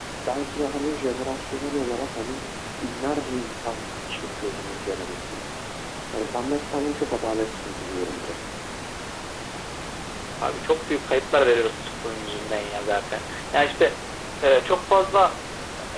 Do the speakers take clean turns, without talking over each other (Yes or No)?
Yes